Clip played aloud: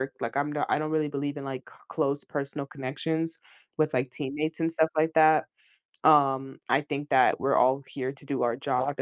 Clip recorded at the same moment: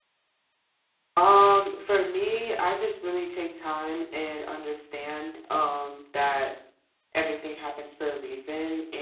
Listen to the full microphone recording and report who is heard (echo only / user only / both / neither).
user only